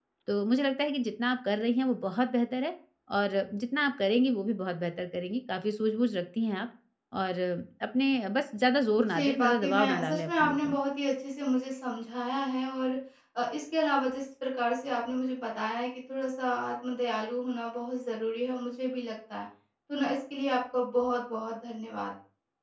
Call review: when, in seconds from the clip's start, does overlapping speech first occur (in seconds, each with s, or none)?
9.1 s